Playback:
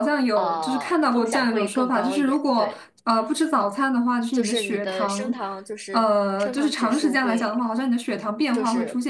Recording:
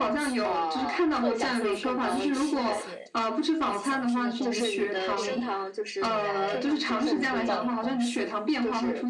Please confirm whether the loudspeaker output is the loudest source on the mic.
Yes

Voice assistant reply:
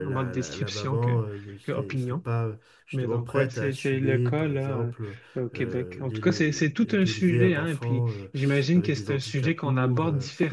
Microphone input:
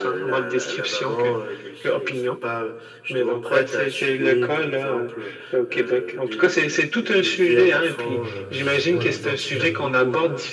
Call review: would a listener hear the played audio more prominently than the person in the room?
Yes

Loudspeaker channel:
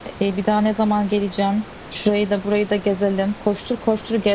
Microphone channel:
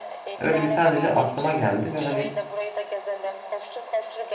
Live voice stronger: Yes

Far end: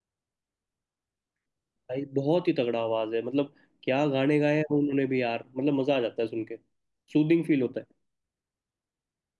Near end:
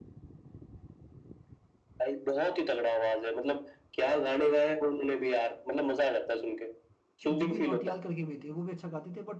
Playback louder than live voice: Yes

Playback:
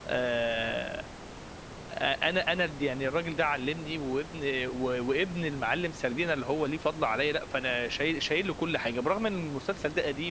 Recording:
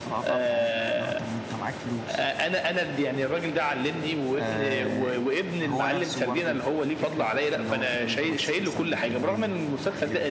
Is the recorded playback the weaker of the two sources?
No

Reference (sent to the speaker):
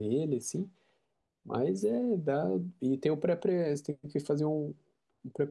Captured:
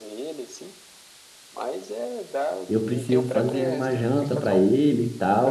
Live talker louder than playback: Yes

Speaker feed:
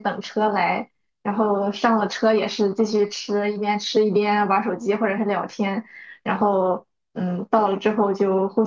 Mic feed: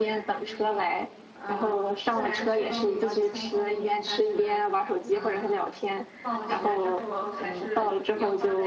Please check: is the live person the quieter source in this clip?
Yes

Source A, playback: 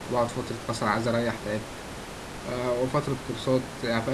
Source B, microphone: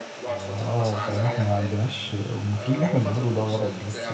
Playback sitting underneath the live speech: Yes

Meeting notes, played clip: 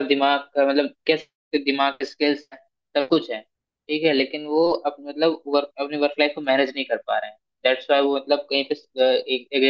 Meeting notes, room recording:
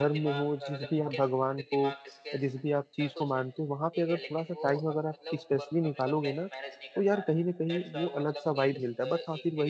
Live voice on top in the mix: Yes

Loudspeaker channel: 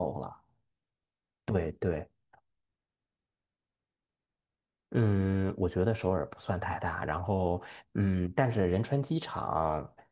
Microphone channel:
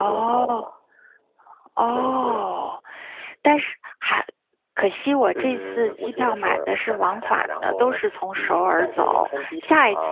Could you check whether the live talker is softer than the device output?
No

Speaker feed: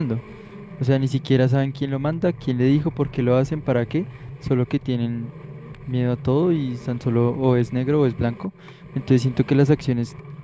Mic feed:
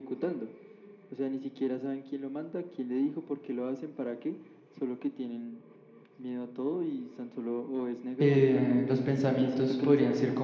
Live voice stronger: Yes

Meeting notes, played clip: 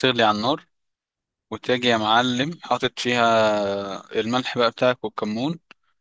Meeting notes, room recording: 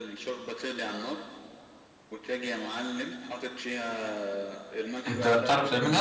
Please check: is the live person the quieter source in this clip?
No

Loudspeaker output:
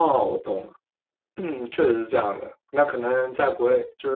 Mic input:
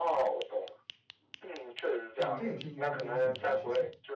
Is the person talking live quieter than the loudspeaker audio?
Yes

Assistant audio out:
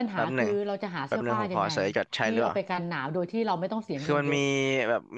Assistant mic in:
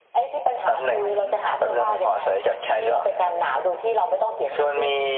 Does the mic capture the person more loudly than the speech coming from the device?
No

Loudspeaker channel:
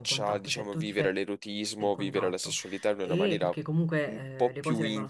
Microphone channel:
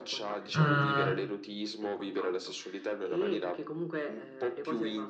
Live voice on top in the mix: Yes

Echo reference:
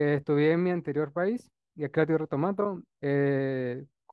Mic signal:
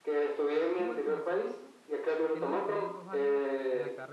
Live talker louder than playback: No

